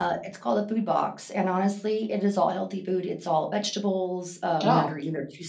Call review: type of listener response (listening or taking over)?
listening